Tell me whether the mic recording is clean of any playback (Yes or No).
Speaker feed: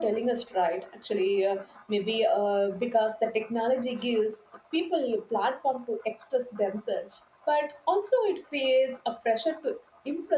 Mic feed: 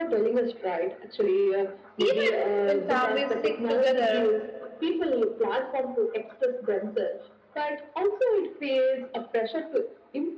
No